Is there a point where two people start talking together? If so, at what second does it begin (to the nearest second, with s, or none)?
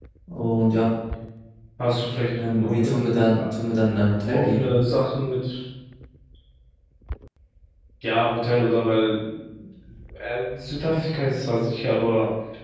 3 s